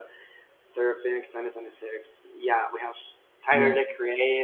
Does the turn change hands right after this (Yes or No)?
No